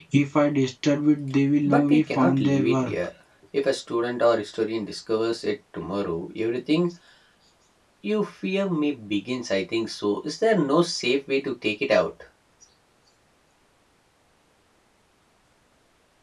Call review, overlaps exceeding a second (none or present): present